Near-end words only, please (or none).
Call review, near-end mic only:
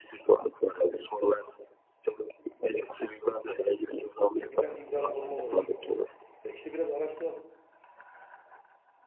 E, bir tane imzalı forma olmayı düşünüyorum. Ya işte biraz araştıralım.